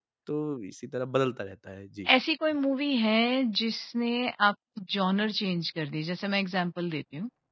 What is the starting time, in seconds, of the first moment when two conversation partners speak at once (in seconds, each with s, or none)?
none